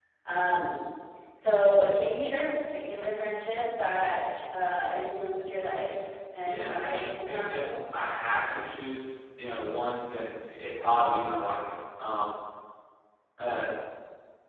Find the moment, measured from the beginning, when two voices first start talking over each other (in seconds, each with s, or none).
6.4 s